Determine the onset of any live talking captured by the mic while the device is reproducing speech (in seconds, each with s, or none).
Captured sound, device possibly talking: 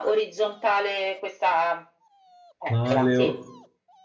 2.7 s